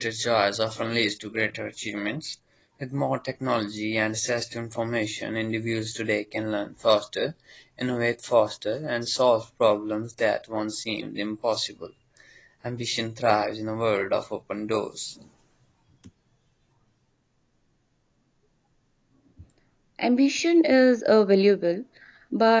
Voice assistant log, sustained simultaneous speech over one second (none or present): none